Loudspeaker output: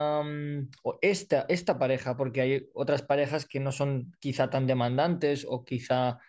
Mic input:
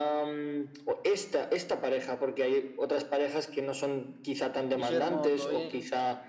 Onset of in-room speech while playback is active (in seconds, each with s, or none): 4.7 s